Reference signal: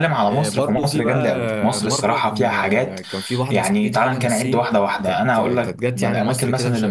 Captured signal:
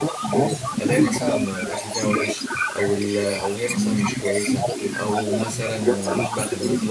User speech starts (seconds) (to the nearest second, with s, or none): 1 s